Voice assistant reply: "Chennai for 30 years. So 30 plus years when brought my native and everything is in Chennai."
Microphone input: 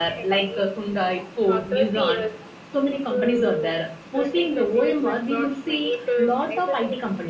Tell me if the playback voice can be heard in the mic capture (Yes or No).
Yes